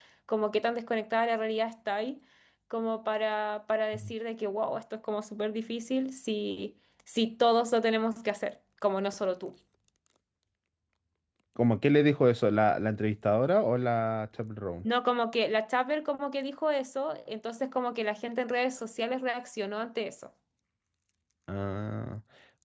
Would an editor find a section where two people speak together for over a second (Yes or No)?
No